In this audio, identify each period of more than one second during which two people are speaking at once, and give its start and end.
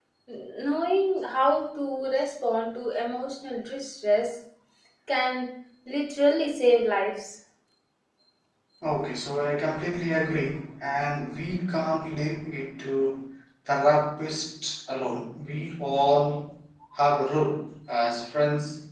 none

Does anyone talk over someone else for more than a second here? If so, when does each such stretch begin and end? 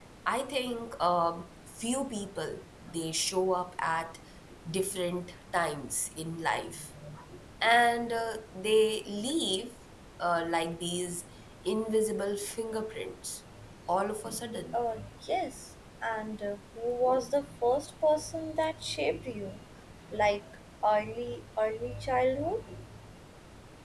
none

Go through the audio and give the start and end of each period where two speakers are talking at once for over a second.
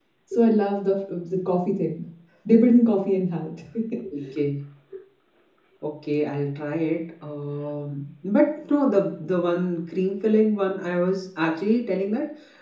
none

